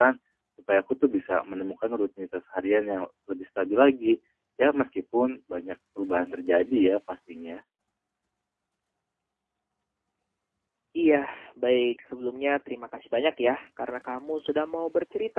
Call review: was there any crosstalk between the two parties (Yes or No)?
No